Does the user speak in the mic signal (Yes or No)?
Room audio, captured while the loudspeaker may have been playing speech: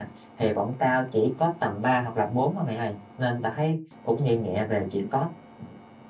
Yes